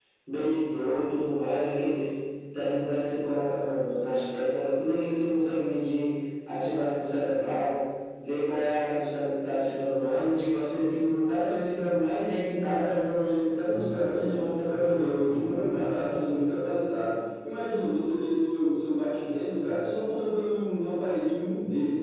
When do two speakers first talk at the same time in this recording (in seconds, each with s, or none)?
13.7 s